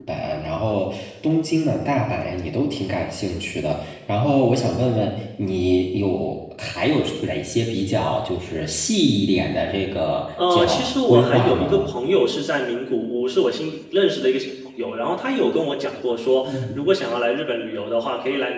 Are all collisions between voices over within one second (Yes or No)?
No